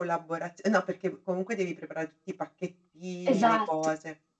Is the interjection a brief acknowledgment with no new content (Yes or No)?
Yes